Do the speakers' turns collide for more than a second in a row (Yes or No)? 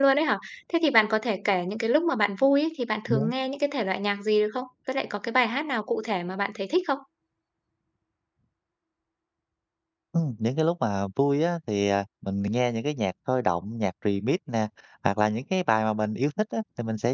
No